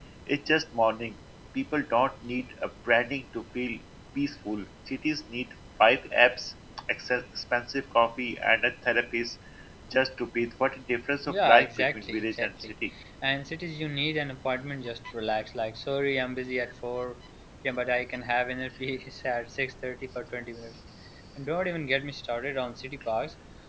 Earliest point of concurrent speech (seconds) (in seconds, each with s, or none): 11.3 s